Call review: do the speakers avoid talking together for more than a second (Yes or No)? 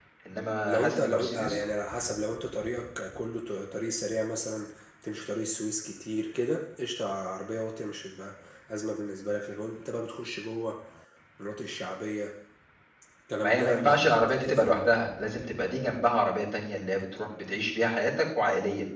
No